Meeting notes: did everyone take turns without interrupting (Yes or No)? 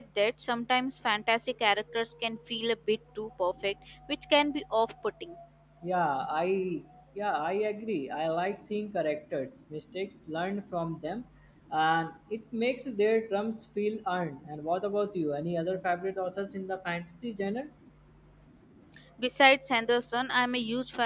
Yes